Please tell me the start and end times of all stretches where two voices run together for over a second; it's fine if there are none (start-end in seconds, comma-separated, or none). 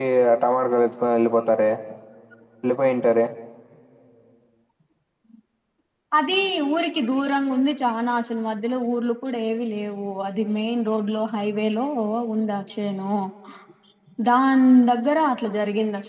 none